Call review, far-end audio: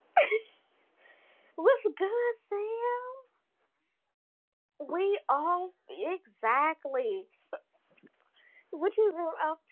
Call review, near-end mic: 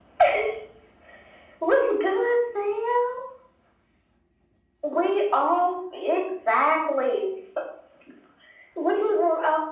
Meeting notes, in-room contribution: none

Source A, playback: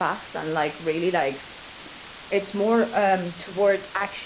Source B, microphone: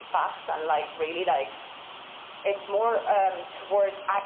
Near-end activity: none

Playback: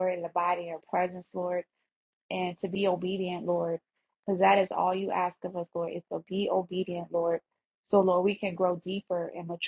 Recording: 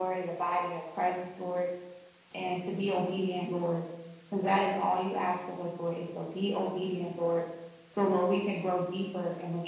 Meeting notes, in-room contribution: none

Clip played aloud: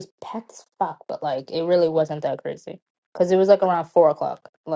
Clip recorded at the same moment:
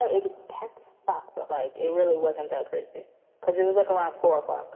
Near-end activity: none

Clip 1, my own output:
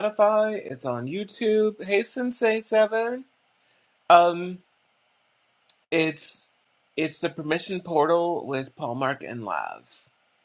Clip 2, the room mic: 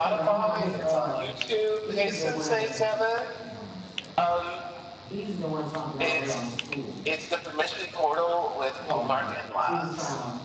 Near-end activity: present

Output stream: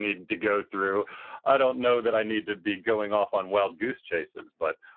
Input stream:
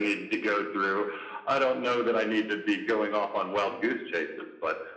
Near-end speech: none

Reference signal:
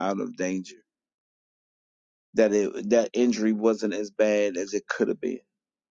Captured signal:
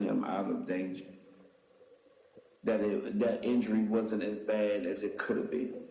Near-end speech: none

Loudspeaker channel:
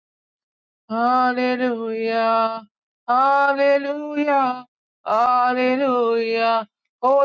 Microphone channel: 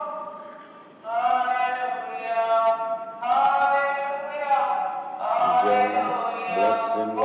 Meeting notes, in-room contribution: present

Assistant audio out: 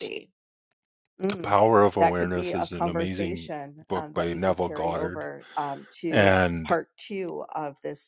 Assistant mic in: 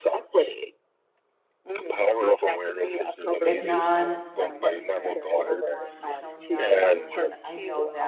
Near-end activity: present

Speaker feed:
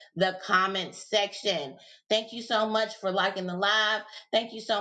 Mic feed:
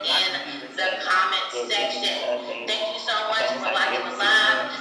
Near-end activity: present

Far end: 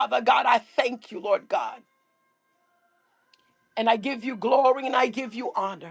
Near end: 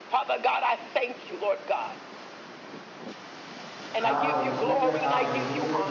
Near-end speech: present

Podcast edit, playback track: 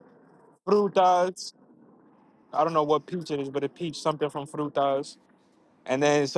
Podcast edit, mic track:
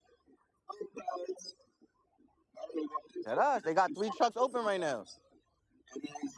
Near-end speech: present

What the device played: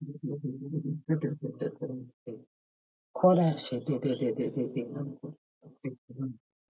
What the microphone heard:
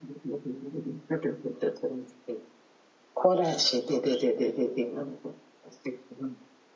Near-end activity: none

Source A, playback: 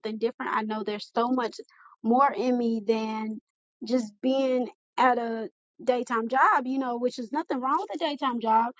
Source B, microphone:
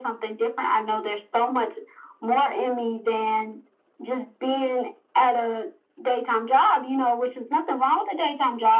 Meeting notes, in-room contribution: none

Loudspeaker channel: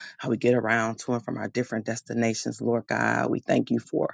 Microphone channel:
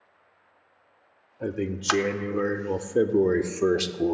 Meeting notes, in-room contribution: present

